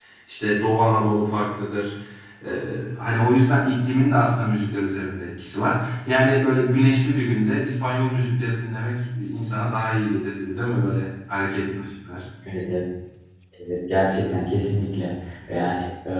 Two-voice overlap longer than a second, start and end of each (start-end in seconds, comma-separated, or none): none